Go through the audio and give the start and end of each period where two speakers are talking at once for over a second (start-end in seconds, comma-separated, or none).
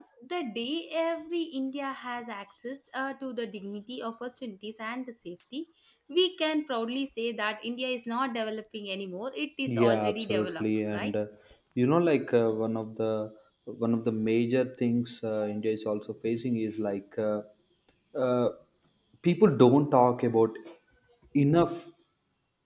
9.7-11.1